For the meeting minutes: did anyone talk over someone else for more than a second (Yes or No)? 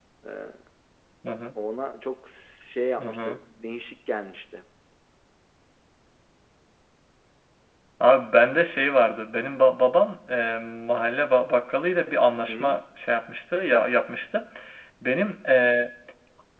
No